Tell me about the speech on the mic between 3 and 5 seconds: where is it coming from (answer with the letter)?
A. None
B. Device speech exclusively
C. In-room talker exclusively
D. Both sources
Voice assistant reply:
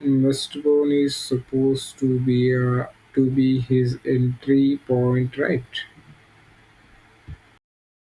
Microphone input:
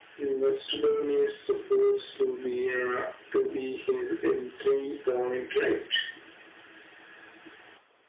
B